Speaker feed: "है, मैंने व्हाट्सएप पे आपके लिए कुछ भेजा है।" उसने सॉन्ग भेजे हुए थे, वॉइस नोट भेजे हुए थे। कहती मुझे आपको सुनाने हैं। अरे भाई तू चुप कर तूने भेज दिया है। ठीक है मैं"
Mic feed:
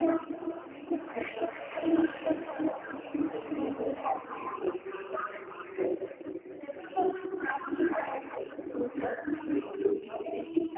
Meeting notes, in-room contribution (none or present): none